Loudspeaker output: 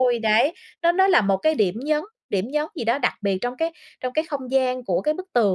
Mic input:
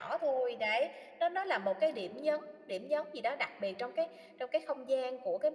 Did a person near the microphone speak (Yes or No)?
No